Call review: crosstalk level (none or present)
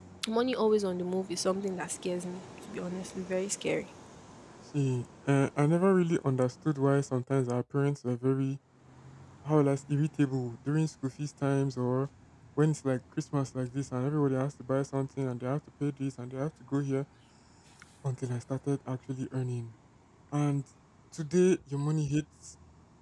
none